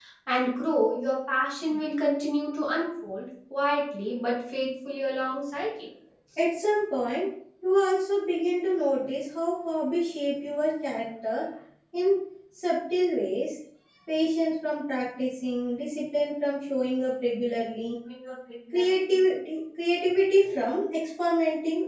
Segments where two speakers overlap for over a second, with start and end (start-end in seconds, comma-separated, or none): none